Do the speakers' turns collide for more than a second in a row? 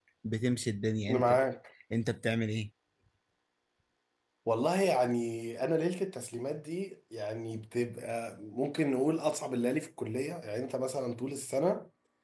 No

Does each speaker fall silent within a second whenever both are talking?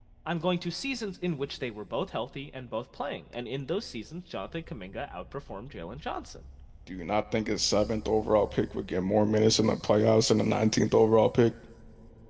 Yes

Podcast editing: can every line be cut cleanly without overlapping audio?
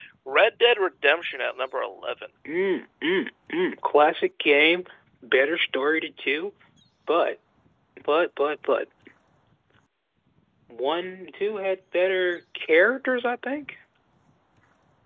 Yes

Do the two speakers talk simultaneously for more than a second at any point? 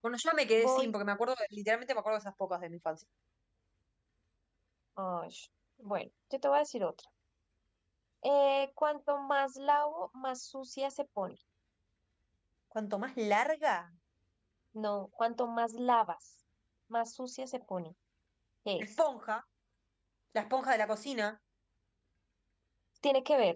No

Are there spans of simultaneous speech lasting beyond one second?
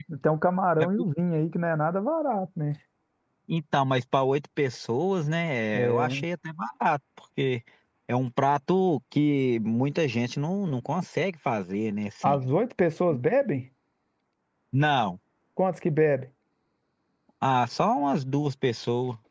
No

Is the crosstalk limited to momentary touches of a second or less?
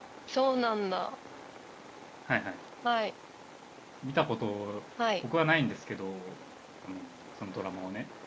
Yes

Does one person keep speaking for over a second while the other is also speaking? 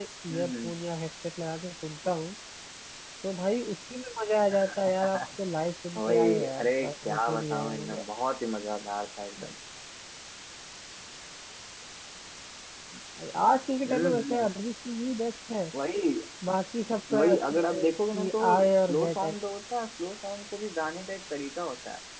Yes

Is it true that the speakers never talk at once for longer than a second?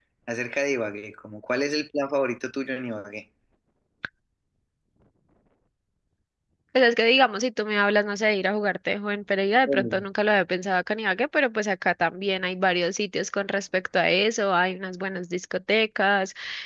Yes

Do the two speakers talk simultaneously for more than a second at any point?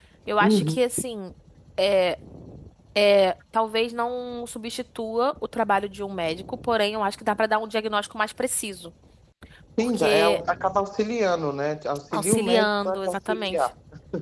Yes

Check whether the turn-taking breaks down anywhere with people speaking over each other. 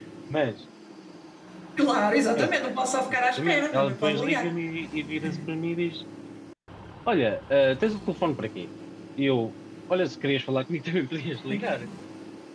Yes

